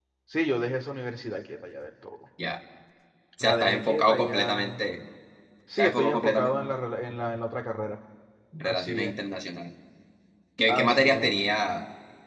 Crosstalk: present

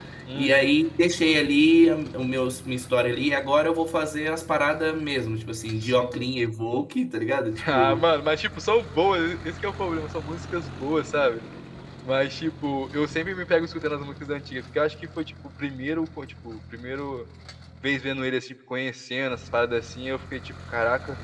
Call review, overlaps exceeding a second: none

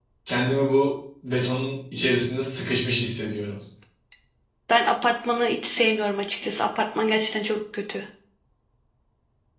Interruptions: none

